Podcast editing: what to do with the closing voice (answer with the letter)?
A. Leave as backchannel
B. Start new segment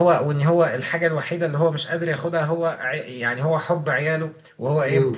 A